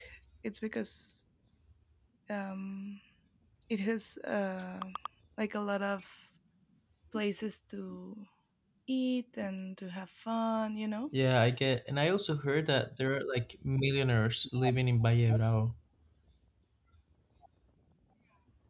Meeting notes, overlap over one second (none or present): none